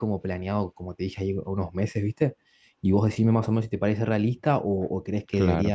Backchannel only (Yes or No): Yes